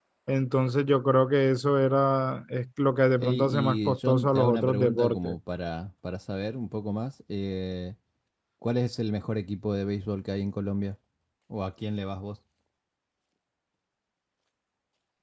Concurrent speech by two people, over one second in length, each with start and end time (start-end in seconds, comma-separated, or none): 3.2-5.4